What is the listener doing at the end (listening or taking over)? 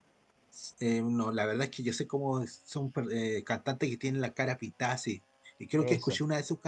listening